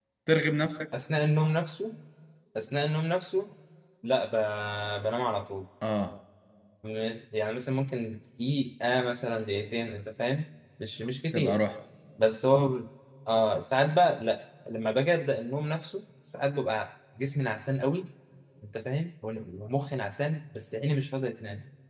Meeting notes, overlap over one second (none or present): none